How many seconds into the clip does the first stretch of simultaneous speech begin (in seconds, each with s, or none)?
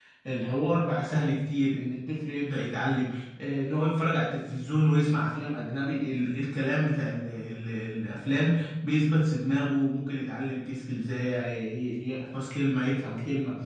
none